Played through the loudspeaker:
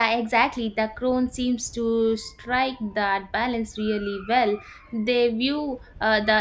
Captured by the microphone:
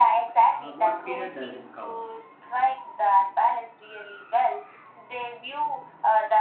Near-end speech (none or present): present